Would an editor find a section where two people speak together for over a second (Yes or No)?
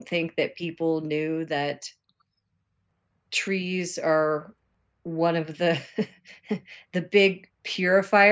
No